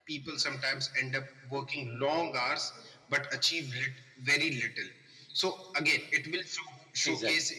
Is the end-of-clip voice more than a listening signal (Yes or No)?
No